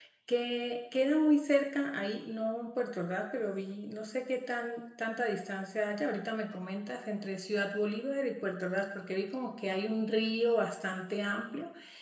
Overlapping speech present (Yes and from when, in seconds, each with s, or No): No